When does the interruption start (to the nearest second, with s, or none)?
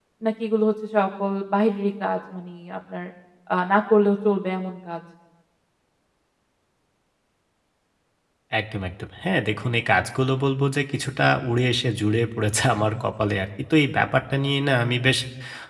none